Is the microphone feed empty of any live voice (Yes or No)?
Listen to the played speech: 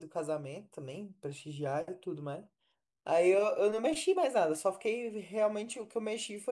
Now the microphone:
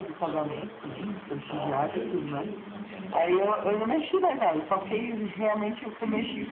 No